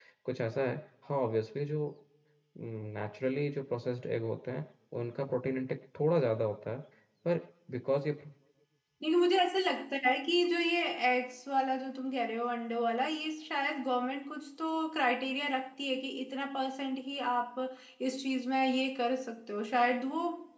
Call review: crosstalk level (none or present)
none